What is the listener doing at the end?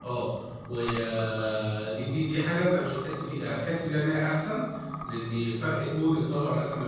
listening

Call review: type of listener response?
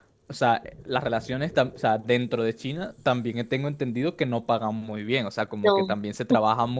listening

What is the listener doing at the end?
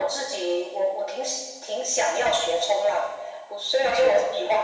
listening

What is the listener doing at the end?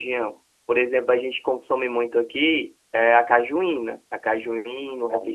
listening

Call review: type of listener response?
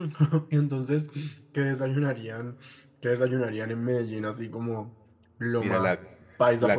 taking over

